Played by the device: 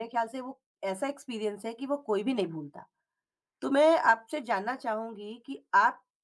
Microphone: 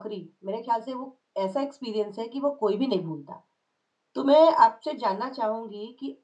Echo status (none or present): present